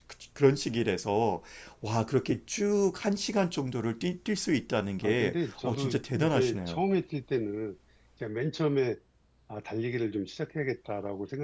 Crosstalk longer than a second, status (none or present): present